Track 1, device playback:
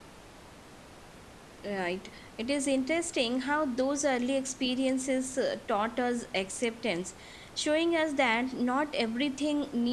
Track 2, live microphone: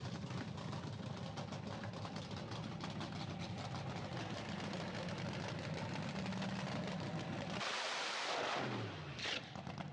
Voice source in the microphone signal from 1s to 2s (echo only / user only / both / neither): neither